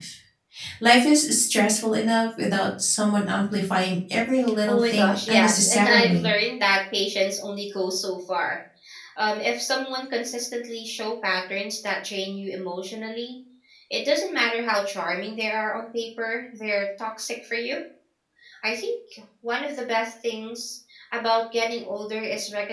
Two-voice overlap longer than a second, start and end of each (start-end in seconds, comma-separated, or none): 4.7-6.3